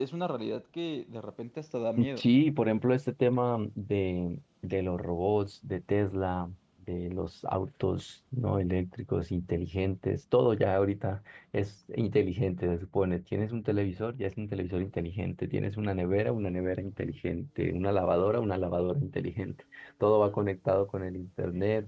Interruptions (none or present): none